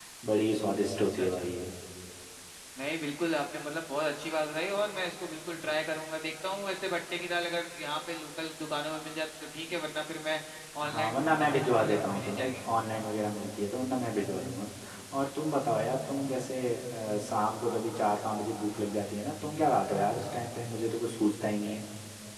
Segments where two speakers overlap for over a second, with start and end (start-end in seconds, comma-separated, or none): 10.8-12.6